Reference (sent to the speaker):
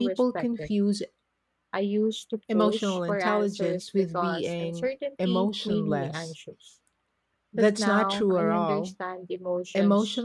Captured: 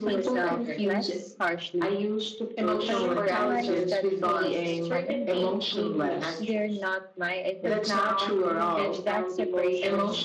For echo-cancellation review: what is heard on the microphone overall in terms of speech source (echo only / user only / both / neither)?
both